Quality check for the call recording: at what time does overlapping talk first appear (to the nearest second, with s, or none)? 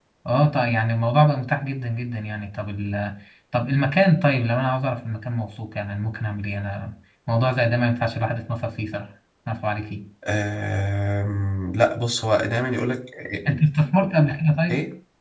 none